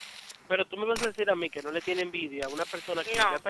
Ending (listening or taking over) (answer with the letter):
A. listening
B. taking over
A